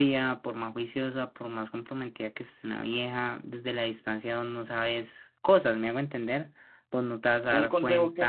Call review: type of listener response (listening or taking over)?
taking over